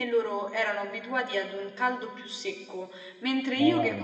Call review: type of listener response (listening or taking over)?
listening